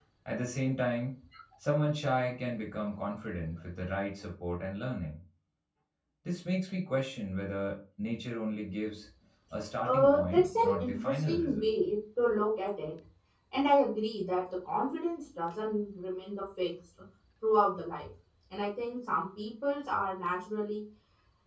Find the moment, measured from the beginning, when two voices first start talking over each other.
10 s

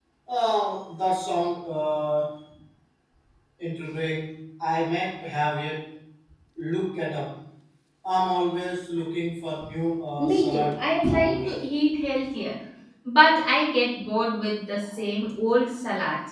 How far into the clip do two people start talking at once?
10 s

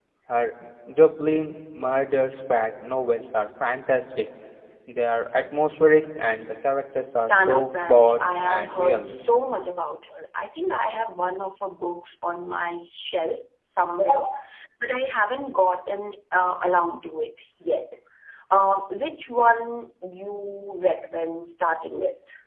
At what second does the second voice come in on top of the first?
7 s

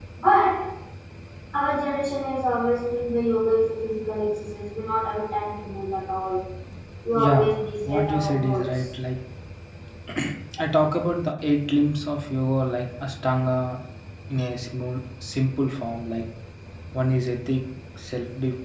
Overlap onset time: 7 s

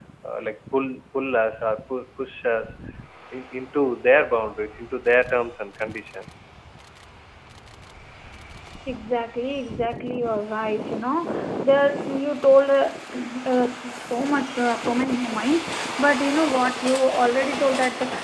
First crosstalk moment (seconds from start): none

